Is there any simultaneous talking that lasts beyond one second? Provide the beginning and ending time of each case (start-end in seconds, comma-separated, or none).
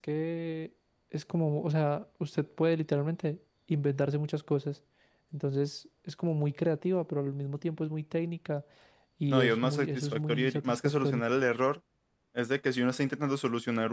9.3-11.2